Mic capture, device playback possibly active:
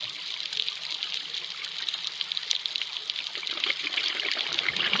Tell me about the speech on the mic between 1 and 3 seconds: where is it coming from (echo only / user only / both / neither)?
neither